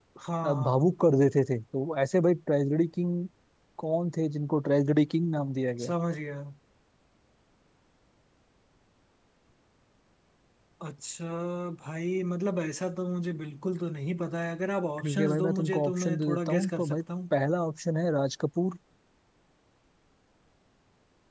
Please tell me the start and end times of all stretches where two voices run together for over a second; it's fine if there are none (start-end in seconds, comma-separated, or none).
15.0-17.0